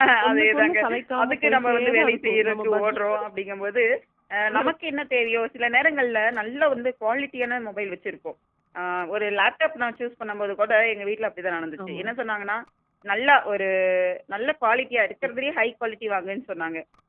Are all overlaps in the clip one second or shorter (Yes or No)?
No